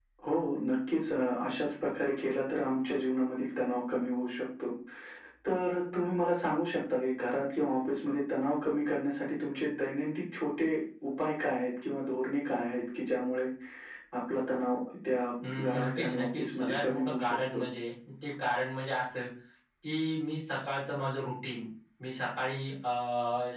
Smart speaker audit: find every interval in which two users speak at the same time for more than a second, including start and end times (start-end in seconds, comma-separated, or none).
15.6-17.6